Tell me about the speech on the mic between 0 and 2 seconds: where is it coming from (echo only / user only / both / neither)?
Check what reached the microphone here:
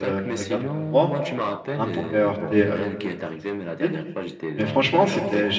both